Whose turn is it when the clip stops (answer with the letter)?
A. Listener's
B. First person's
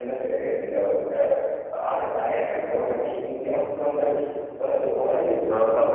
A